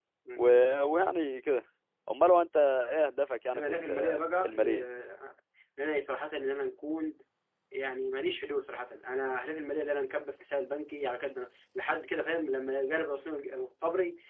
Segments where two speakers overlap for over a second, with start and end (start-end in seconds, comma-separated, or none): 3.5-4.8